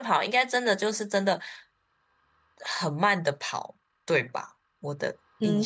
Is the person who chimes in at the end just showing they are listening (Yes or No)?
No